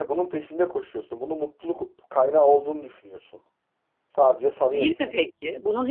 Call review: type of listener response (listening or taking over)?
taking over